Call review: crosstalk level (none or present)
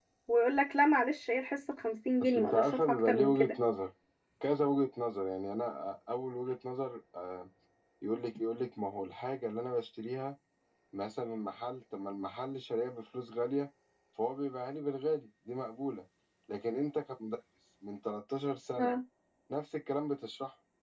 present